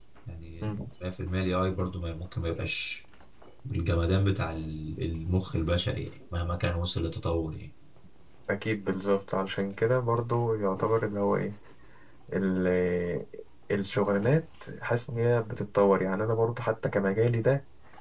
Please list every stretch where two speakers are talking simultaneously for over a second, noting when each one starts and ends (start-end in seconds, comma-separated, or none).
none